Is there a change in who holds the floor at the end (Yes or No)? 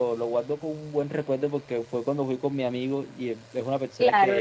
Yes